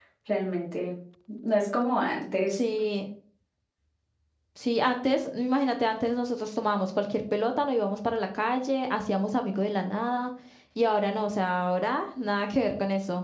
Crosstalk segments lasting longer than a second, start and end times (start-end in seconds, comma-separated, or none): none